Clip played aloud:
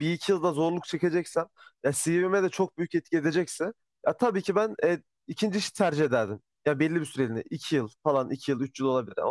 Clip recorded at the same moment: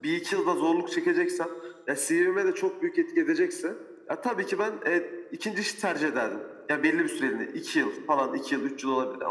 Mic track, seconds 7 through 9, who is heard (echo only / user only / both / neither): echo only